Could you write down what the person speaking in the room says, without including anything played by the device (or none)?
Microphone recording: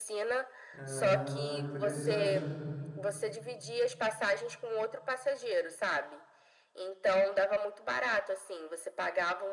Ah, interessante.